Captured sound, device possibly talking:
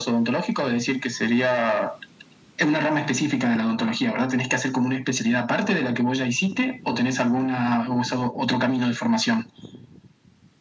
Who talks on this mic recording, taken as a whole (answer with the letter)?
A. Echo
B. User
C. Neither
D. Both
A